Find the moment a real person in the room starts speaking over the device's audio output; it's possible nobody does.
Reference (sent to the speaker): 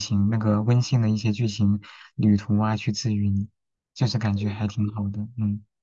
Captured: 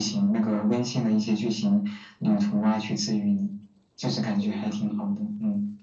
none

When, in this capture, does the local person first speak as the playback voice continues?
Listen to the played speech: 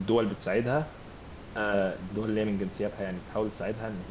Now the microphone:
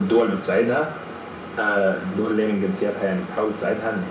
none

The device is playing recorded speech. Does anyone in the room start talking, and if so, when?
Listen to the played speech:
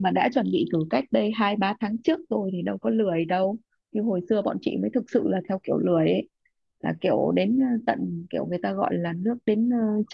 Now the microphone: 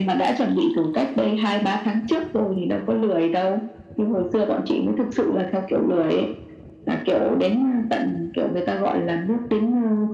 none

